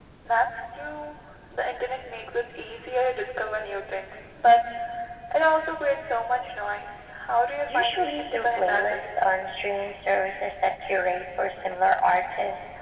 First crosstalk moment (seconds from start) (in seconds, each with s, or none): 7.7 s